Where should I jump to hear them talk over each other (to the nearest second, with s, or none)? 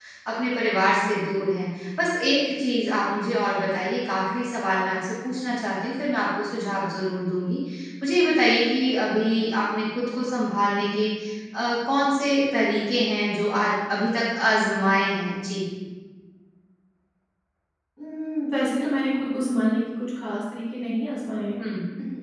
none